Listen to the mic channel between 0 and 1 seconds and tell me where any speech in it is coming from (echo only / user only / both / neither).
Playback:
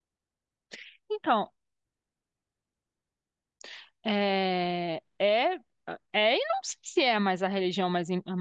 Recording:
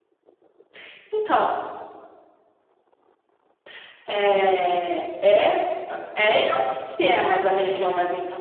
neither